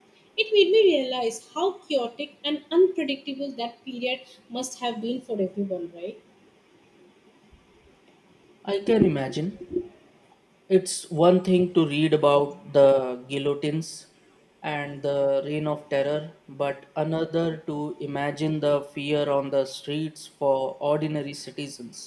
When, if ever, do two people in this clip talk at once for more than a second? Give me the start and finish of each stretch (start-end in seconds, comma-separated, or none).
none